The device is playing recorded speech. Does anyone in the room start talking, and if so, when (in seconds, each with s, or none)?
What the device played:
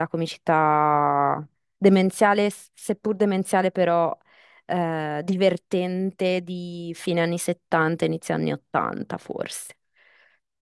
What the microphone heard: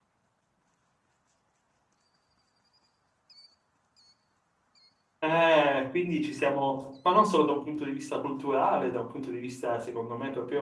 5.2 s